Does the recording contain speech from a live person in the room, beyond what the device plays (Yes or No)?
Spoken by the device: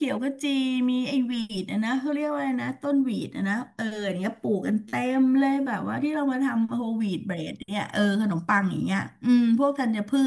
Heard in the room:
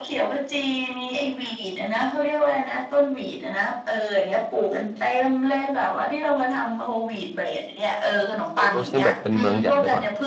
Yes